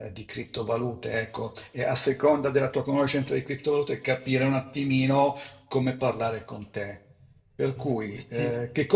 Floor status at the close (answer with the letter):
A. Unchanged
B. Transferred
A